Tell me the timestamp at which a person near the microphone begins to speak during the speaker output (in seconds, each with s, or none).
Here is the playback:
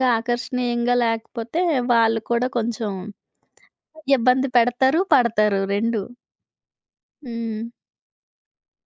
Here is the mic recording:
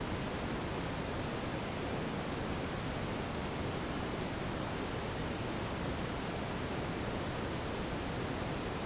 none